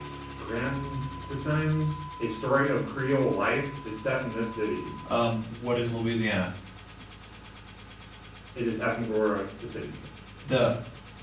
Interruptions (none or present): none